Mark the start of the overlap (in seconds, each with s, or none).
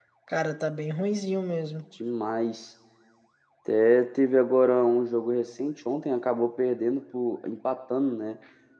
none